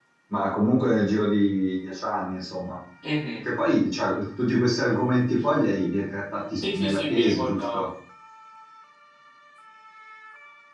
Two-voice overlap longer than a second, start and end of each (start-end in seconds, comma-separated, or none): 6.6-7.8